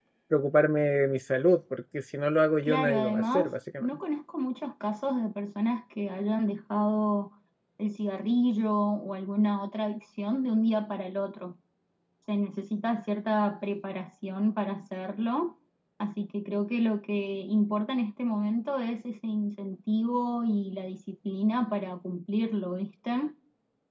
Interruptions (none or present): present